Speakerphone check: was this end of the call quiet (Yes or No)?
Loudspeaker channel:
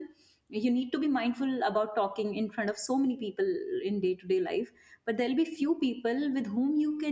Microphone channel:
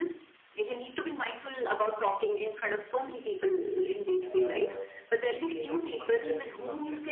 No